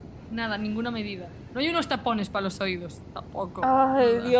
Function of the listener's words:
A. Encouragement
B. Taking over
B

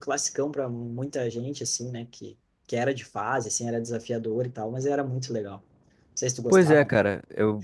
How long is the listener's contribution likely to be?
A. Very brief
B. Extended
B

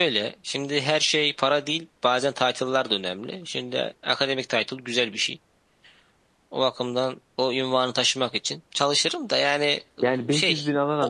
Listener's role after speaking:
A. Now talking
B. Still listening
A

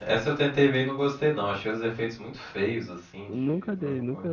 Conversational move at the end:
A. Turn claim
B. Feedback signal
A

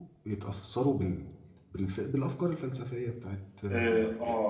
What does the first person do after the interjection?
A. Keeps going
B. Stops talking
B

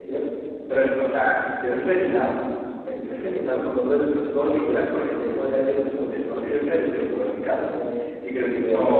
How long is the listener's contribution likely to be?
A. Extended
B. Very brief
A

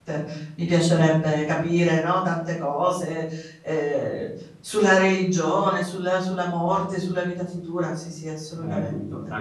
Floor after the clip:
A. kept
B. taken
B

